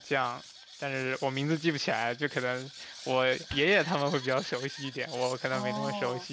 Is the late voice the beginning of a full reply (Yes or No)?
Yes